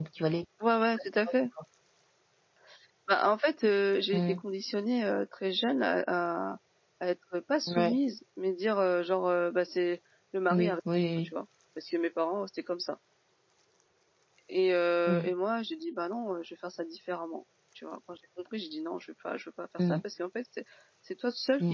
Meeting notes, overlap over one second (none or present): none